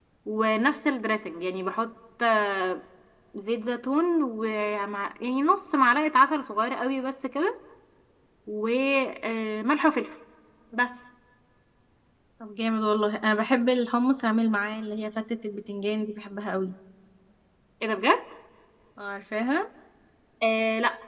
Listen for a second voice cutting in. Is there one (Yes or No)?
No